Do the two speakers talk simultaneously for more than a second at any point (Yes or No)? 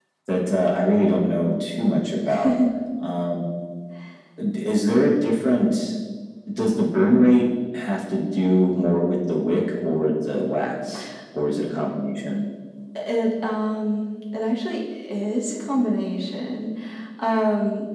No